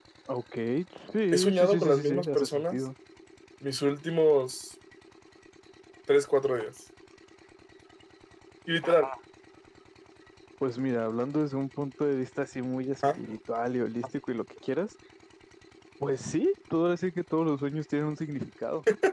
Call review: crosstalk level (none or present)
present